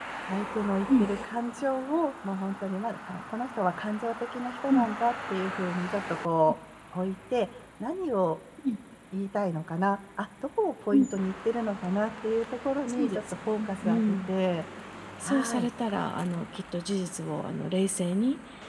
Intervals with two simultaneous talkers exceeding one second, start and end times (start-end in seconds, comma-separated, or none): 12.9-14.3